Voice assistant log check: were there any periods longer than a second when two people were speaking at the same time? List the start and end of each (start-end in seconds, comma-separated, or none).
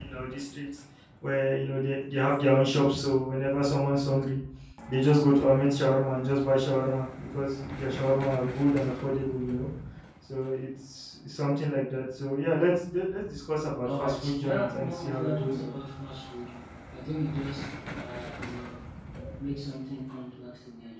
13.8-15.5